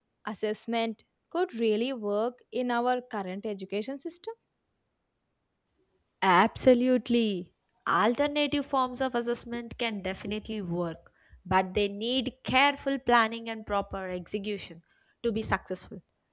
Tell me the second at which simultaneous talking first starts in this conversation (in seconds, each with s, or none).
none